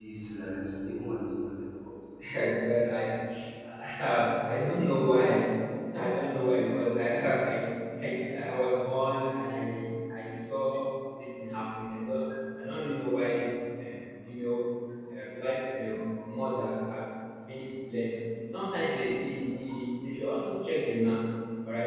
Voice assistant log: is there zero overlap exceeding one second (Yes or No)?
Yes